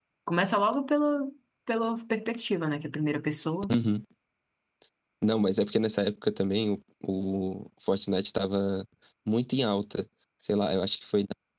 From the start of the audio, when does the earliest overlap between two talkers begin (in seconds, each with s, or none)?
none